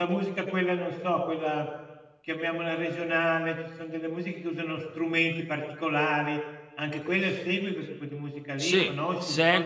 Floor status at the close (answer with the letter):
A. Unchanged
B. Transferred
B